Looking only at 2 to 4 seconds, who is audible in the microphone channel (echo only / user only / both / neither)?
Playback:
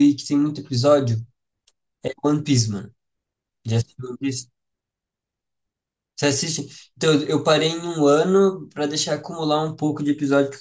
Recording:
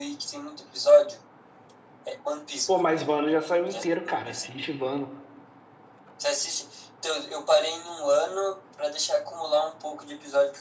both